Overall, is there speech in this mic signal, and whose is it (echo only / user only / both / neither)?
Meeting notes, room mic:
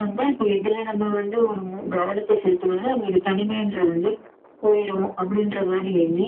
echo only